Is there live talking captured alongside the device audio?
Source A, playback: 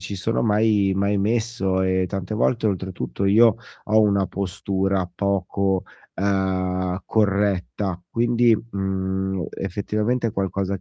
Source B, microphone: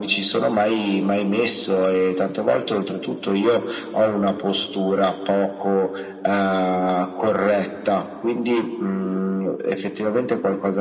No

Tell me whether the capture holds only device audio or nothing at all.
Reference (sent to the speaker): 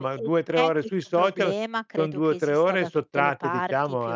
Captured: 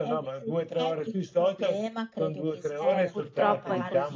No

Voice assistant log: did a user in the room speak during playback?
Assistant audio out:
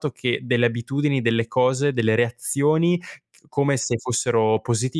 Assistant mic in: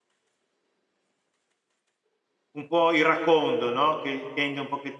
Yes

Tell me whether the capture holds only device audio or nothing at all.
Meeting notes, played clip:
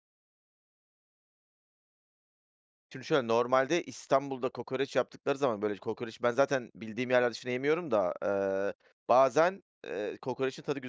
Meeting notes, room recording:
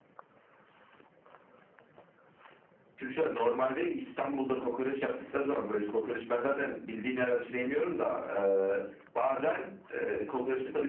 Yes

